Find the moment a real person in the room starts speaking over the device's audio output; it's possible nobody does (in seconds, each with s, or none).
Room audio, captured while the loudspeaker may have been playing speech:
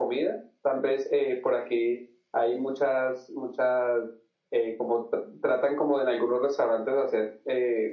none